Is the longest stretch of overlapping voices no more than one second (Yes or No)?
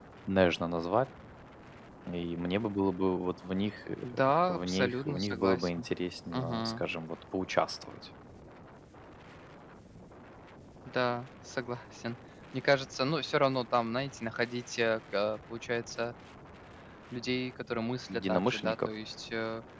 No